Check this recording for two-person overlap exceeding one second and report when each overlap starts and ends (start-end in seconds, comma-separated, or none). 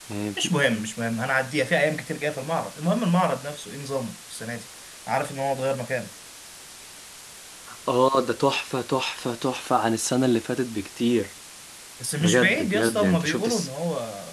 12.2-13.7